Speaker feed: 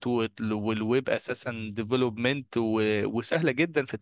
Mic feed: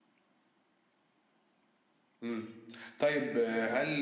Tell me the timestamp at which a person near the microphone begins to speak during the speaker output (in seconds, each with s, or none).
2.2 s